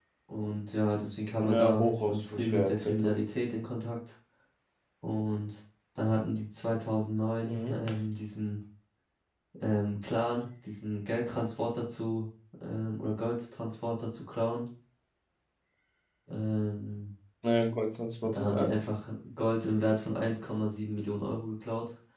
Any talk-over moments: Yes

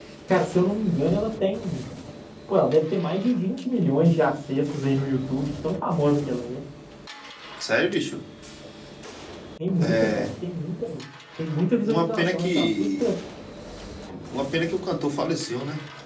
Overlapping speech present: Yes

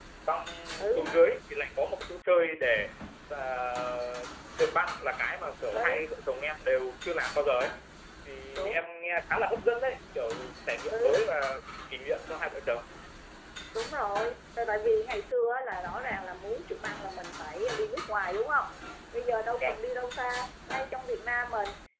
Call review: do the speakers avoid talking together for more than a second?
Yes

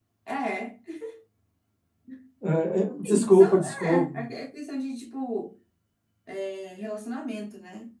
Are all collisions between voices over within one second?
No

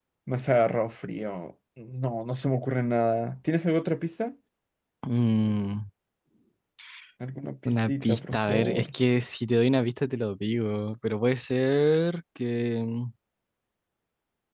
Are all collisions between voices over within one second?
No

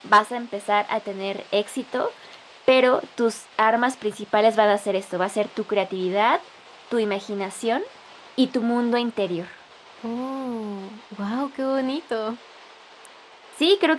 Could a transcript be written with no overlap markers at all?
Yes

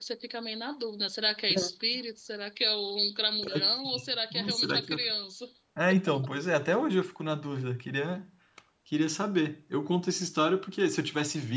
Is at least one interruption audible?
Yes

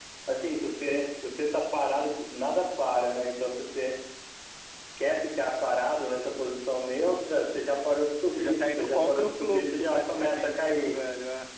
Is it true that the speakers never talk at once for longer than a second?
No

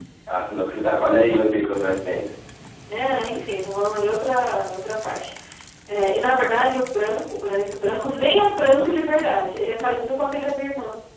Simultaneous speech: No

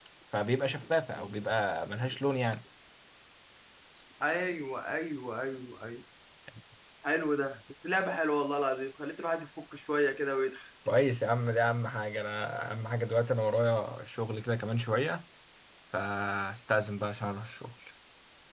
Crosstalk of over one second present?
No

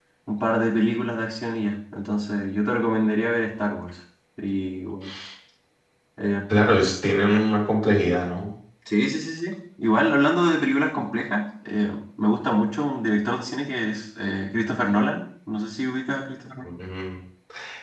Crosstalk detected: No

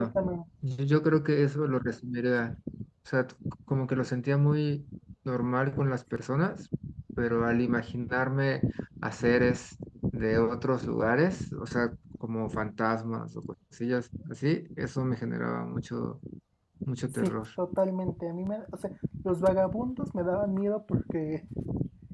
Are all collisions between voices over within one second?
Yes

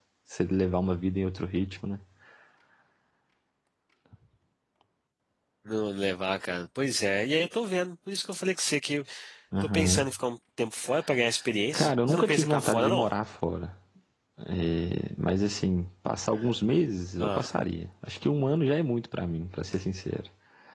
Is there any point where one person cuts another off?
Yes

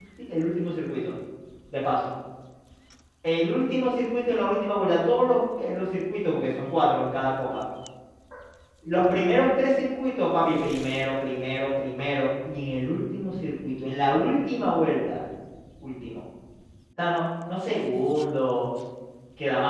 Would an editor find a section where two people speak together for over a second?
No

